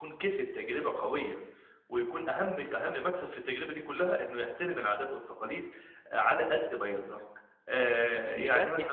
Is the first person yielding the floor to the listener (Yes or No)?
Yes